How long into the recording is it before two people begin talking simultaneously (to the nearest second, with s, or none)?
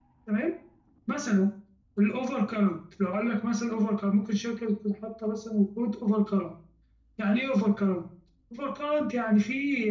none